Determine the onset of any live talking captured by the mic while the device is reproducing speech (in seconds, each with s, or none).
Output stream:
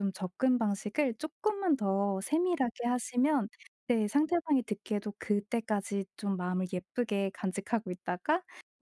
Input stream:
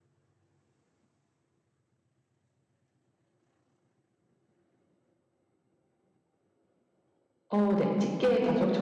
7.5 s